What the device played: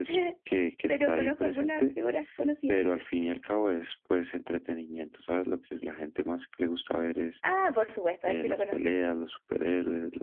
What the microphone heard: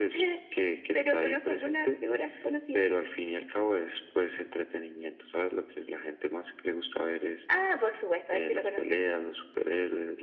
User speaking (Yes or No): No